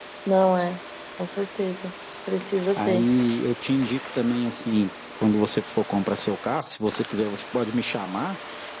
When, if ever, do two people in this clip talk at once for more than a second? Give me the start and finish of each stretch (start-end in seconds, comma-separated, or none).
none